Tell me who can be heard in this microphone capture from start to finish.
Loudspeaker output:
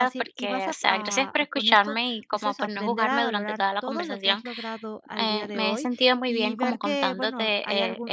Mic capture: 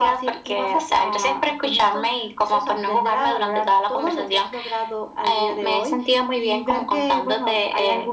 echo only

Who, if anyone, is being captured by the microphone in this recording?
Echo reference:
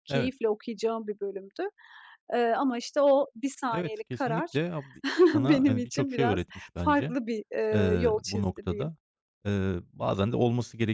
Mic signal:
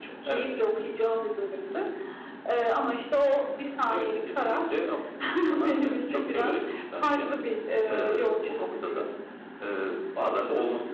echo only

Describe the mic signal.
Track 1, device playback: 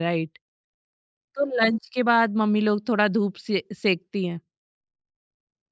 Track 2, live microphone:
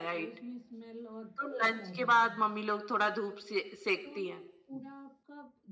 both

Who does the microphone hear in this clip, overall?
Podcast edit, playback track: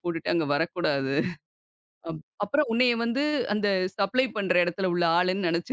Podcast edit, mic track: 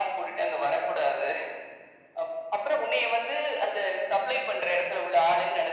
echo only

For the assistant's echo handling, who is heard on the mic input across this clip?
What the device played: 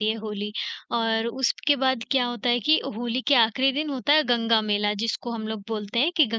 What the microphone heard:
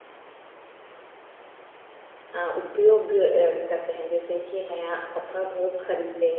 user only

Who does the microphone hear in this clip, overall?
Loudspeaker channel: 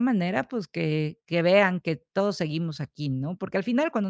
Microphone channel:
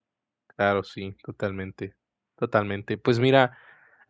user only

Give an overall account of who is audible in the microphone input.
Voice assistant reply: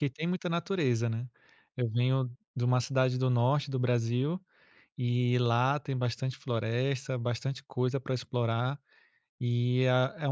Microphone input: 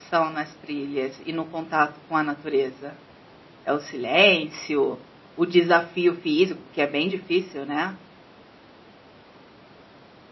user only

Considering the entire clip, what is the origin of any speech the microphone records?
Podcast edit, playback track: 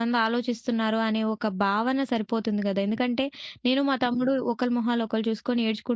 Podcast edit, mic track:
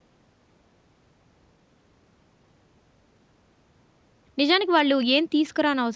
user only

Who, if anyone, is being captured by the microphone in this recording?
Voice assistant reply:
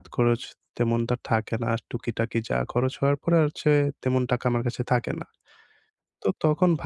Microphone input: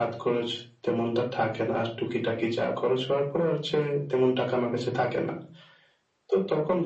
echo only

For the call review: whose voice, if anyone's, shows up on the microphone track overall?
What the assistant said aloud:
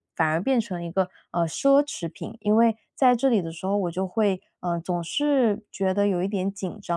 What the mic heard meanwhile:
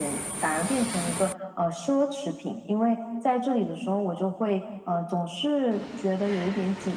echo only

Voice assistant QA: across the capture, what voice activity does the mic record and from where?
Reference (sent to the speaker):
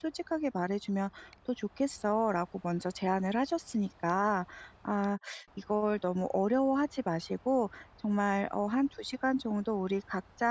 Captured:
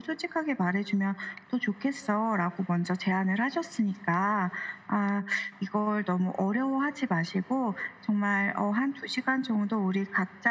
echo only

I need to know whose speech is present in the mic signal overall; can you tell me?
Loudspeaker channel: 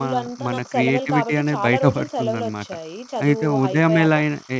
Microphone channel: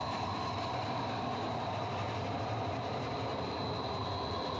neither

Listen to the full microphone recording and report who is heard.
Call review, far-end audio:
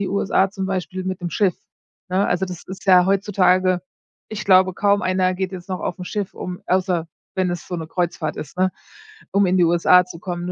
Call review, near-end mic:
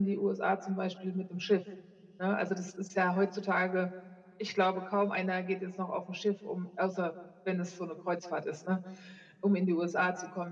echo only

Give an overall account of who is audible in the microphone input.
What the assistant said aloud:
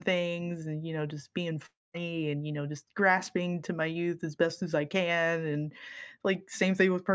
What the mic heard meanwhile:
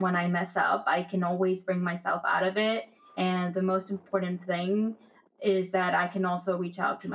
user only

